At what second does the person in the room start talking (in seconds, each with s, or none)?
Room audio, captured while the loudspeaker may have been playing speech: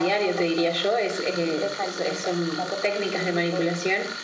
none